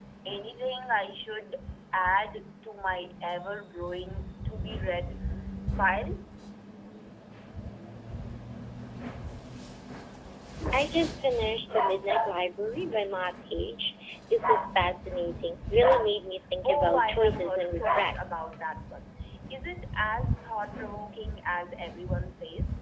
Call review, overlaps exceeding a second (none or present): present